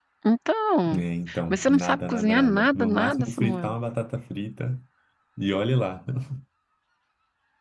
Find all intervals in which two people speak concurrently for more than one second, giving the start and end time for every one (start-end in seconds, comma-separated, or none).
1.5-3.7